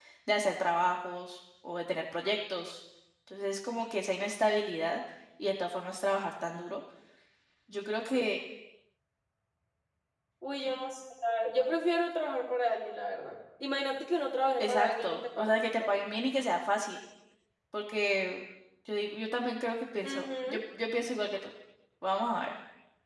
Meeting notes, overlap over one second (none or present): present